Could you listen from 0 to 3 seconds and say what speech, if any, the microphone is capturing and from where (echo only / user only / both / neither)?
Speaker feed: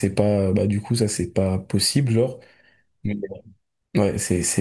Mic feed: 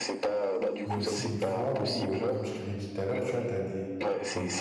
both